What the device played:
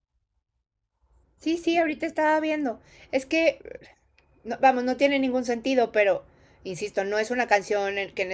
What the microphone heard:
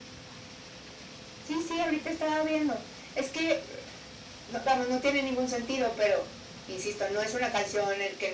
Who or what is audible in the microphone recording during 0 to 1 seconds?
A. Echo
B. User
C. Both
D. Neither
D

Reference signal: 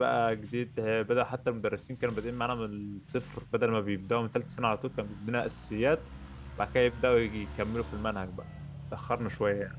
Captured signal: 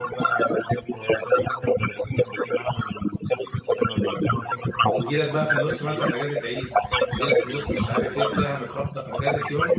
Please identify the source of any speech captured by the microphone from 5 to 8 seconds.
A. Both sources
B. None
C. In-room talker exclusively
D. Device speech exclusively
A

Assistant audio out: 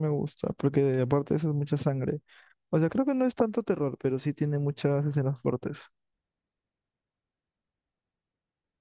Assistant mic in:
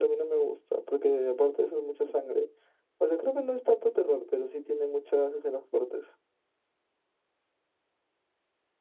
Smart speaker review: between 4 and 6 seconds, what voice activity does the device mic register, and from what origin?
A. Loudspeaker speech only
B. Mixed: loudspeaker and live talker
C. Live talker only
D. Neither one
A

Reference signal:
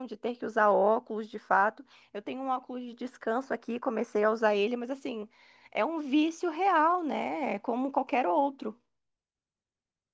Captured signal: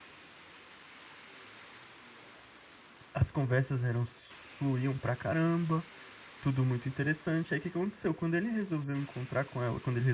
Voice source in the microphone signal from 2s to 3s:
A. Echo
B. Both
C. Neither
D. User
C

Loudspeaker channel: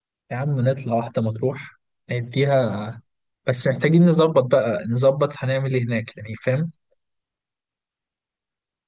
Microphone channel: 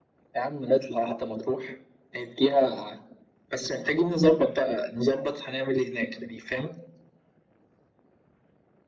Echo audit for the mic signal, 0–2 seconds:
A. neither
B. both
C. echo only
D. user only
C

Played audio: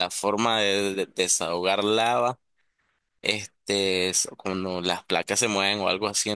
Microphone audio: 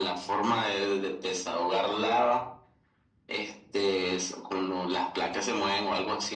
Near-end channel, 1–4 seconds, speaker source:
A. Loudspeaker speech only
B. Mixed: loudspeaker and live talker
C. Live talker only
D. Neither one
A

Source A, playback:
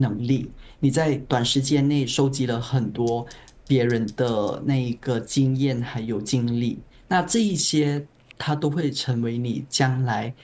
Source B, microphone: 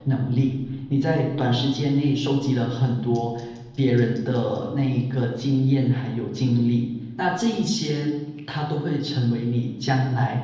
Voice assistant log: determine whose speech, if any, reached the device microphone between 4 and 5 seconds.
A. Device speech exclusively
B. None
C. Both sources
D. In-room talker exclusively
A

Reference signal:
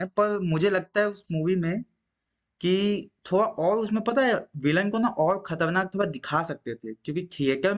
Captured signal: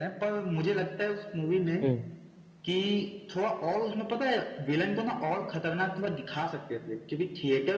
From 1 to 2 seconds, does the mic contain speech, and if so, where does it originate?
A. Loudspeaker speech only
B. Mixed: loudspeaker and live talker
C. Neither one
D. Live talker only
B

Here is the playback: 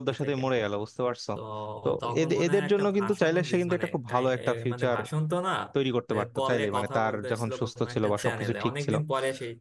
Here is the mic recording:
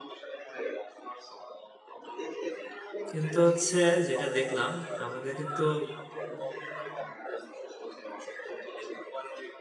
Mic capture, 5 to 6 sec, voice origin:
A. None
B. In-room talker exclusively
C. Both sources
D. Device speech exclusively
C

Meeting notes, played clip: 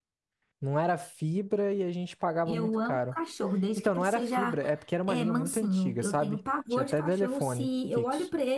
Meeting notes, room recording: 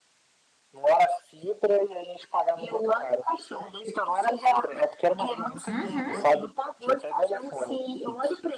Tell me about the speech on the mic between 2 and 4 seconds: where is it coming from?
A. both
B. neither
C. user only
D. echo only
D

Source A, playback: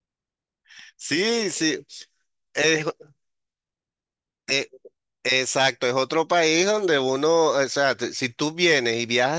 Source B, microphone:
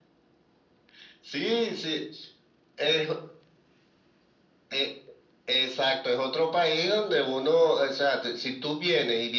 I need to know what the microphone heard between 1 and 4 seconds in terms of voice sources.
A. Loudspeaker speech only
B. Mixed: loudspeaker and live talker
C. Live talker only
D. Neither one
A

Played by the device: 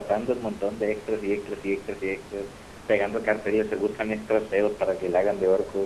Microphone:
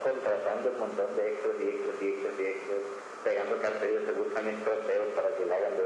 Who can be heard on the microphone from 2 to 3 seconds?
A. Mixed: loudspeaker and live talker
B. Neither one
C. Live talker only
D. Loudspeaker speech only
D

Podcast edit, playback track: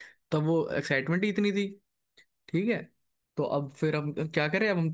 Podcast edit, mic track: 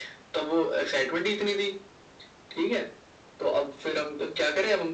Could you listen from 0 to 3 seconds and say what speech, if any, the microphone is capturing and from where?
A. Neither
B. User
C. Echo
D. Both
C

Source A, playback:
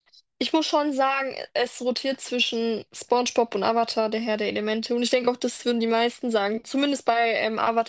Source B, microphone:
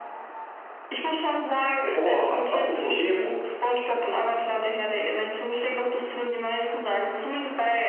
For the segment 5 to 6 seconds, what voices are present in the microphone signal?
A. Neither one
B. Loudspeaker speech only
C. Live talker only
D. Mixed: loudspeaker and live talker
B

